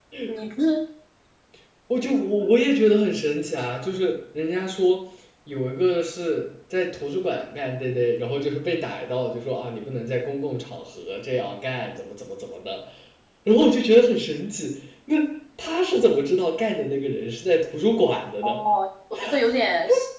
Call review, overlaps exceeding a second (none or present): none